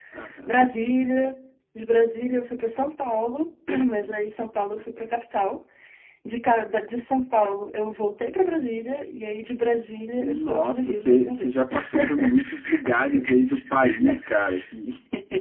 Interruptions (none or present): present